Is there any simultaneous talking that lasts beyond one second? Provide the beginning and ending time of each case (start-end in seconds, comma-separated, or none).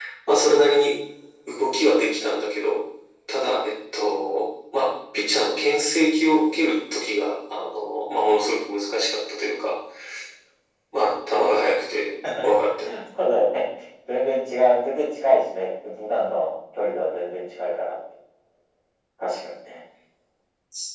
none